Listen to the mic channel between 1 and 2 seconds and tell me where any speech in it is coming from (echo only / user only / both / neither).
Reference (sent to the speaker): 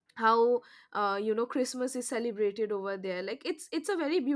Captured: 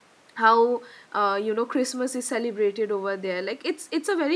echo only